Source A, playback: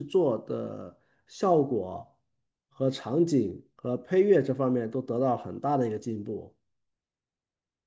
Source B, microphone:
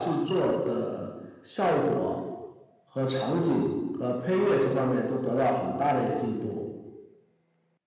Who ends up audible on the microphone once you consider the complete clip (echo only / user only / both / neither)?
echo only